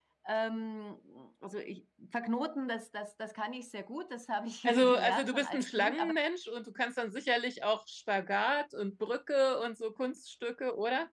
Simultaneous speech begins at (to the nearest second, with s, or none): 5 s